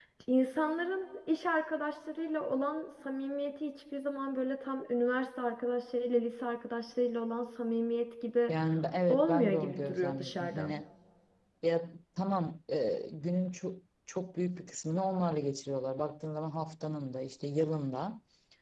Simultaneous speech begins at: 9.1 s

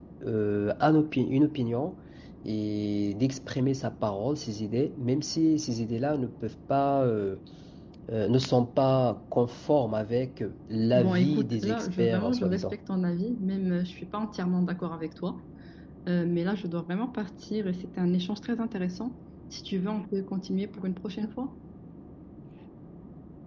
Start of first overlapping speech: 10.9 s

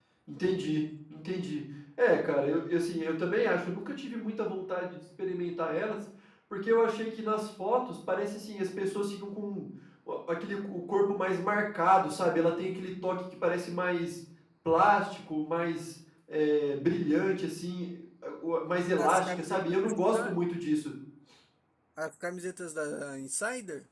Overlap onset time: 19.0 s

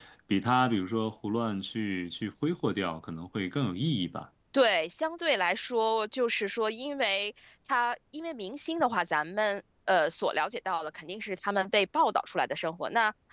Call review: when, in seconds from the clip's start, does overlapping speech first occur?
none

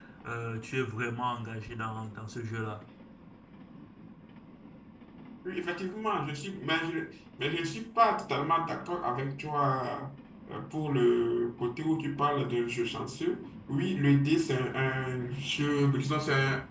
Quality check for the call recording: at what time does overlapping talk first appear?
none

